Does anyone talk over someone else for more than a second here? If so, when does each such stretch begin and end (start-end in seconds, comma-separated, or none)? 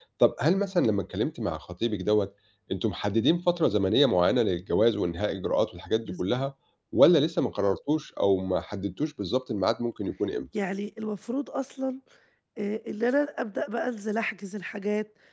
none